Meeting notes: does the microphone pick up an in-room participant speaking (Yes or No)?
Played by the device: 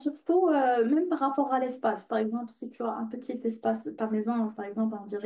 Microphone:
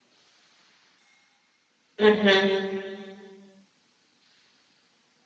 Yes